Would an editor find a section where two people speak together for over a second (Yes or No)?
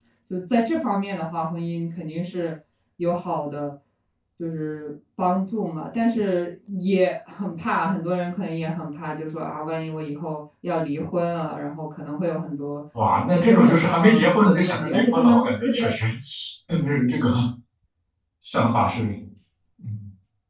Yes